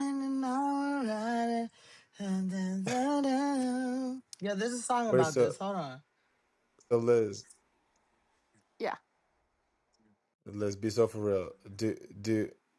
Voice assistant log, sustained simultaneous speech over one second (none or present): none